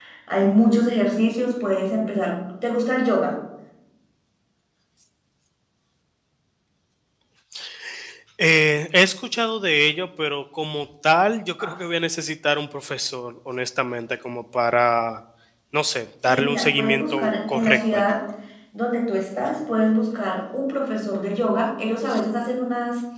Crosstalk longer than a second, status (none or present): present